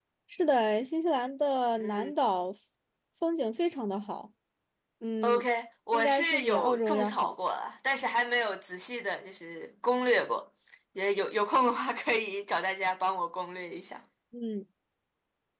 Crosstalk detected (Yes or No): Yes